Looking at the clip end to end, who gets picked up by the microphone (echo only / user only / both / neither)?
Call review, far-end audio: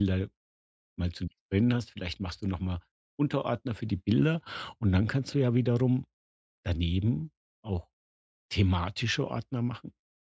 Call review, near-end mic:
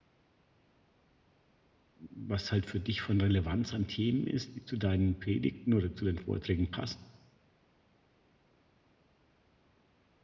user only